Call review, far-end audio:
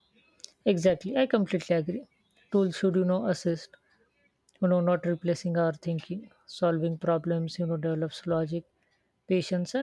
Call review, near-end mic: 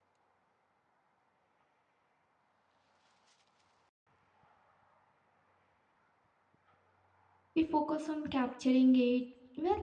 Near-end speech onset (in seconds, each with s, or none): 7.6 s